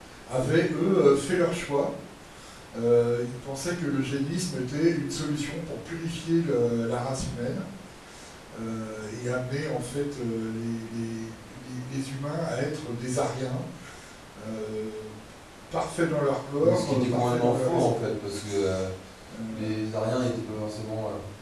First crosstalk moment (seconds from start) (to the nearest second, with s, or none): 17 s